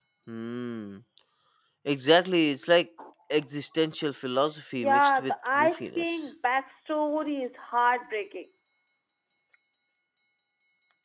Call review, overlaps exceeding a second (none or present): present